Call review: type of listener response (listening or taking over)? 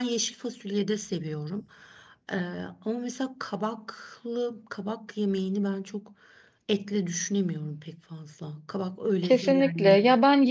taking over